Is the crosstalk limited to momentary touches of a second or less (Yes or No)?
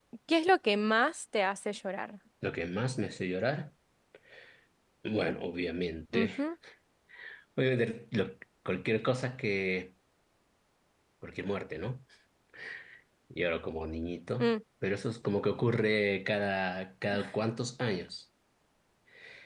Yes